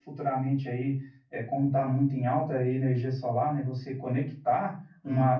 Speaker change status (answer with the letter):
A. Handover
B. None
B